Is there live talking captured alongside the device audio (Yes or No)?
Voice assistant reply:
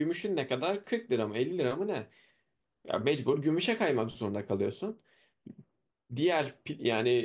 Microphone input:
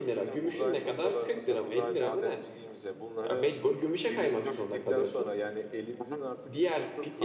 Yes